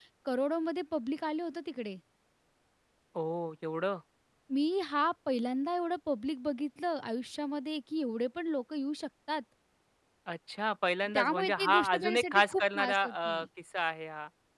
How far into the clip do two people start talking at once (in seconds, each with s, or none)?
11.1 s